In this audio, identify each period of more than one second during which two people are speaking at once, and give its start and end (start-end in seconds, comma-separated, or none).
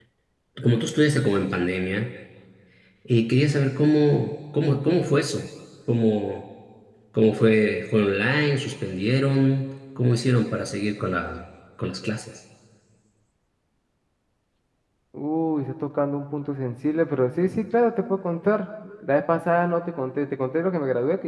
none